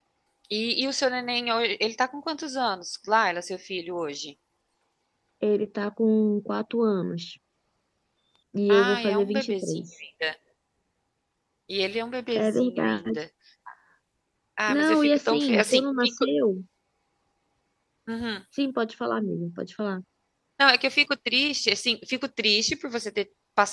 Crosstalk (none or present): present